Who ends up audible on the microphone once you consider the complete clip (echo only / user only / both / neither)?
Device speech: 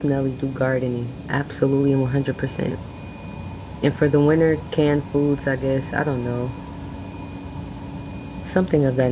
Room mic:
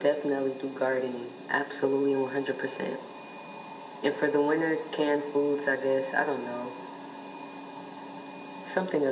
echo only